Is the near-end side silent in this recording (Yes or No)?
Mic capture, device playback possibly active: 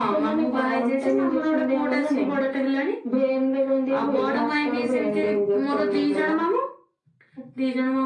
Yes